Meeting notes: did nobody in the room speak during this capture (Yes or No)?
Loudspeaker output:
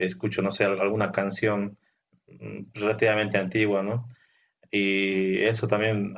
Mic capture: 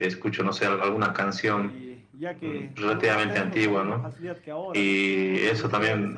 No